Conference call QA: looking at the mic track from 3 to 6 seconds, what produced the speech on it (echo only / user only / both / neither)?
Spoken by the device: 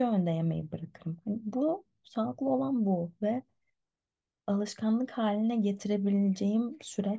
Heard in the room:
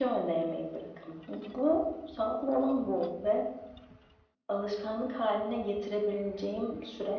echo only